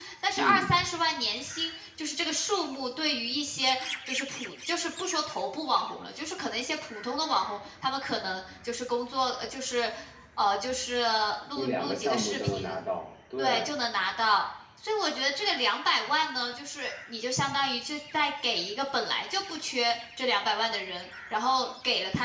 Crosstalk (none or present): present